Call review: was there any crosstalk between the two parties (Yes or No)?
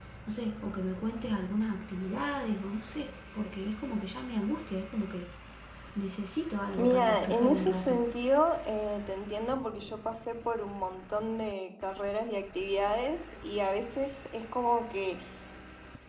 Yes